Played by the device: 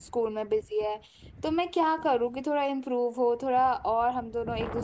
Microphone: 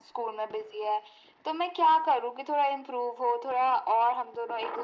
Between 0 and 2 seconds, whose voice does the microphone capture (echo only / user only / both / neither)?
echo only